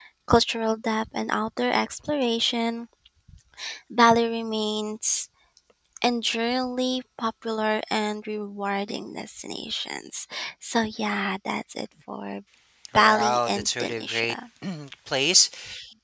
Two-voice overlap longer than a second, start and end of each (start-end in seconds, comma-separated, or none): 12.9-14.3